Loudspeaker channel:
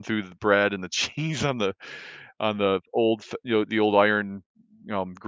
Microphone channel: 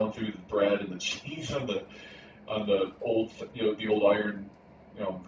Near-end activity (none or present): none